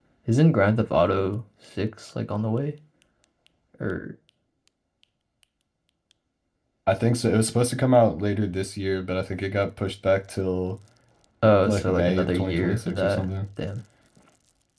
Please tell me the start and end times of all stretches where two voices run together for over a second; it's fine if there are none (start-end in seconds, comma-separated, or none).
11.6-13.2